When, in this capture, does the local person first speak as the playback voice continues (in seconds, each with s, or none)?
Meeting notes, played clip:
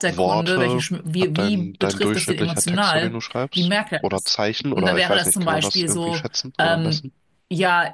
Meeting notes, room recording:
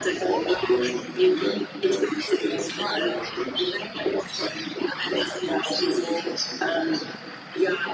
none